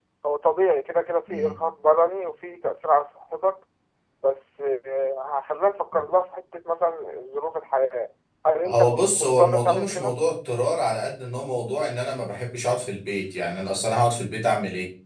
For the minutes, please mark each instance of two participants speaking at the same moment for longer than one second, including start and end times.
8.7-10.1

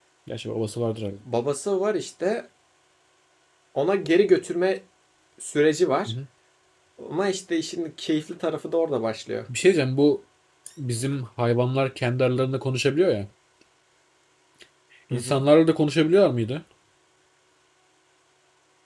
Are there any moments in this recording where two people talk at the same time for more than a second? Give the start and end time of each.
none

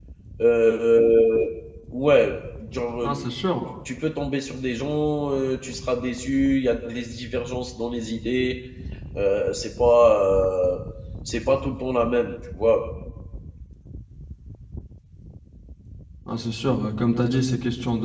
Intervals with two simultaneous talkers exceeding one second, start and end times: none

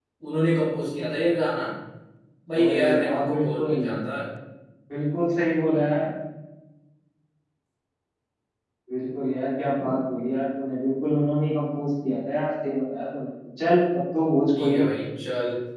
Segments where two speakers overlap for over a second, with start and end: 2.6-3.8

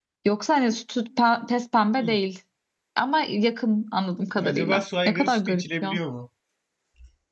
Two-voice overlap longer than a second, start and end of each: 4.5-6.0

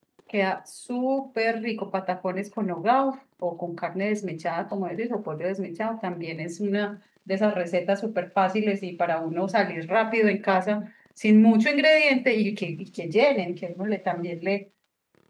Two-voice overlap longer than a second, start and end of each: none

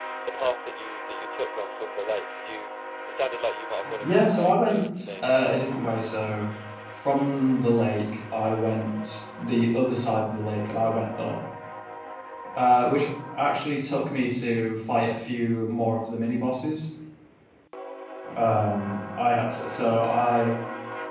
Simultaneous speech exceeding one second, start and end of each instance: 4.0-5.2

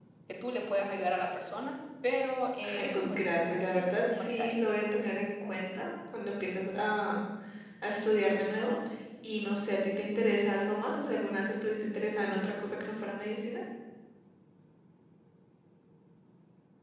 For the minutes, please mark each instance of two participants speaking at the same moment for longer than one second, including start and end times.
2.7-4.6

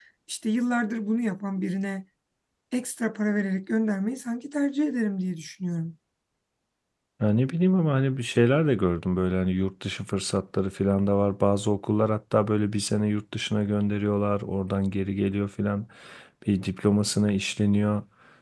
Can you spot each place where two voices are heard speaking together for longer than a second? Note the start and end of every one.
none

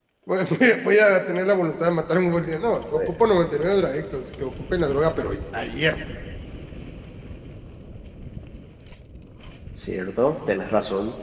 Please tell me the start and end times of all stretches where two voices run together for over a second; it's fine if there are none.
none

